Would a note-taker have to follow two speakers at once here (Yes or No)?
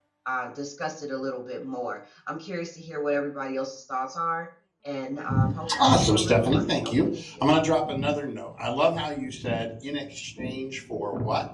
Yes